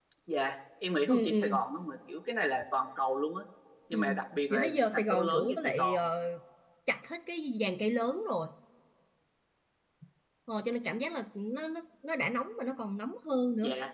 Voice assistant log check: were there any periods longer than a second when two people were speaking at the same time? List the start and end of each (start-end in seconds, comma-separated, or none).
4.5-6.0